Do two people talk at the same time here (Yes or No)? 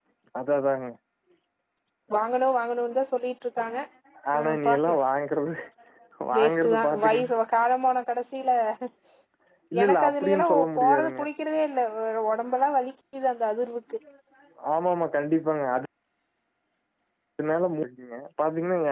Yes